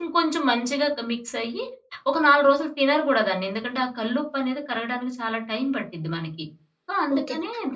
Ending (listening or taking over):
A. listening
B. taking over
B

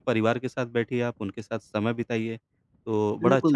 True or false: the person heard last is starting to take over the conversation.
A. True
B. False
A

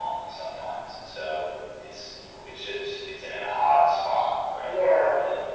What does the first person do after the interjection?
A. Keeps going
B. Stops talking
B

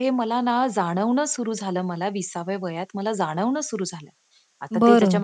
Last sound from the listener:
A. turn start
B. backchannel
B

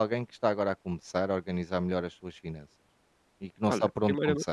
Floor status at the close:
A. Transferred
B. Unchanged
A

